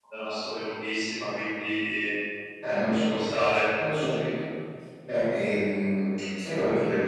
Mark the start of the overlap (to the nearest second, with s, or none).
none